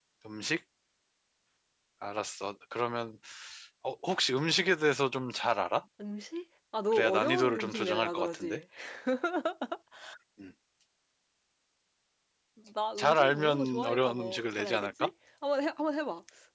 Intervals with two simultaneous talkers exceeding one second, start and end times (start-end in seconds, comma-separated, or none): 6.9-8.6, 13.0-15.1